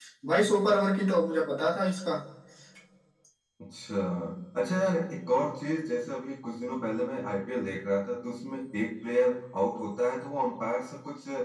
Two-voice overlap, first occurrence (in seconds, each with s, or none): none